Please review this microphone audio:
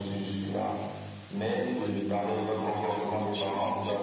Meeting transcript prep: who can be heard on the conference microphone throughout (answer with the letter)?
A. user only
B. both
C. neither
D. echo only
B